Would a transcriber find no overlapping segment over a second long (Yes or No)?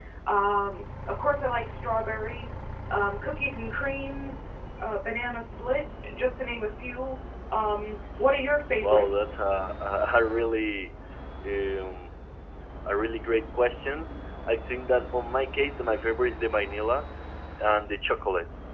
Yes